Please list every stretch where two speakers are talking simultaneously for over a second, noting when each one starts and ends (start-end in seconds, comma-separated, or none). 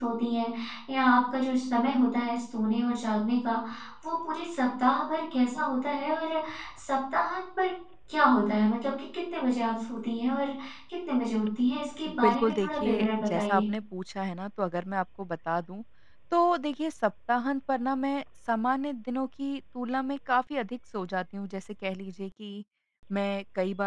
12.2-13.6